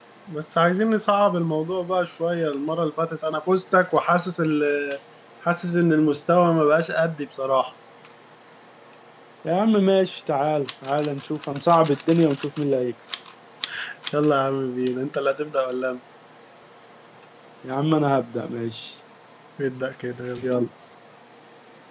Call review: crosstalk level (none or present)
none